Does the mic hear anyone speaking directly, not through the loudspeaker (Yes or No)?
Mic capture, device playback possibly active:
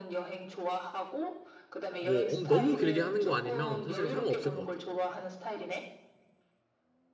Yes